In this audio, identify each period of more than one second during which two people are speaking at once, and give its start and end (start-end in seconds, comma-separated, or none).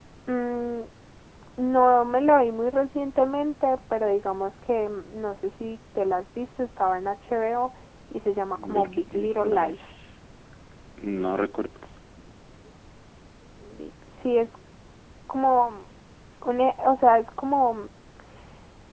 8.5-9.8